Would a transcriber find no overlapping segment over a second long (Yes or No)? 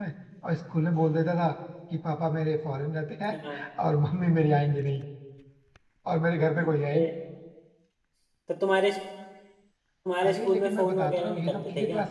No